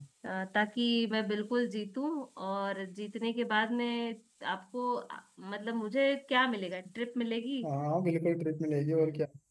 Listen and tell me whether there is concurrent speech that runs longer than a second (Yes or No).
No